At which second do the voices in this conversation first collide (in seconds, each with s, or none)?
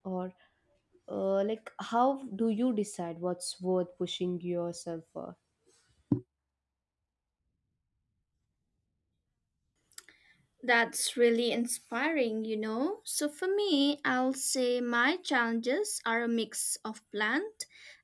none